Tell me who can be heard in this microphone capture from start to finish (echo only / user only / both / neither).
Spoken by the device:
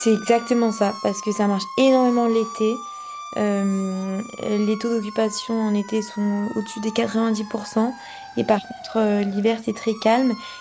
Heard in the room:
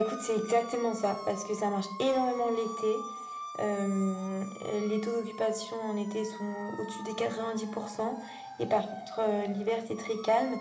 echo only